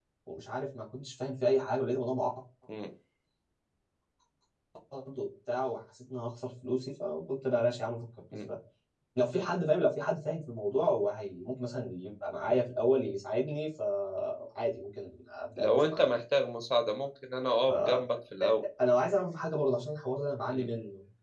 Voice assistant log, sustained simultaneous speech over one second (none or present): none